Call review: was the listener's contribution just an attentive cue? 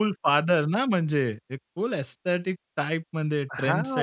No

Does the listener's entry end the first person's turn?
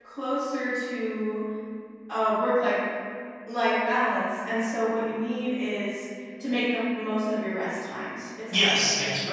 Yes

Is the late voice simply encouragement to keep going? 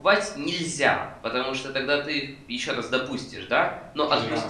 Yes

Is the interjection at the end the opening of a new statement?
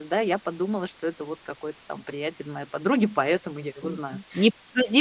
Yes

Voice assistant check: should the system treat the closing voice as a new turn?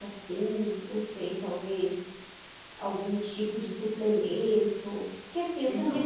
No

